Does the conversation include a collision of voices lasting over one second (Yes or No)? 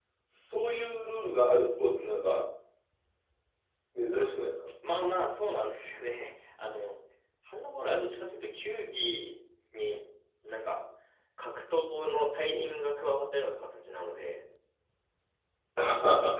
No